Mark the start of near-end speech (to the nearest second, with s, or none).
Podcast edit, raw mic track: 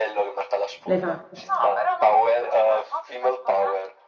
1 s